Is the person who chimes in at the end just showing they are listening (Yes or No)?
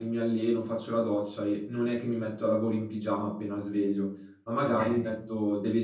Yes